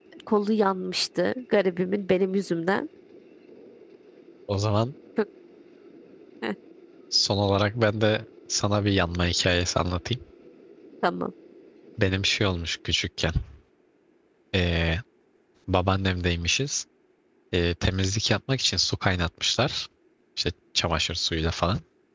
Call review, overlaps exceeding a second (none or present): none